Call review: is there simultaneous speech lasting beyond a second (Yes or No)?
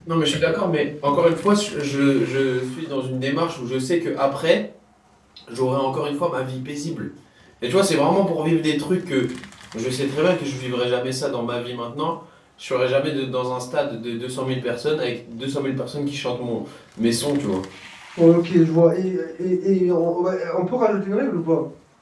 No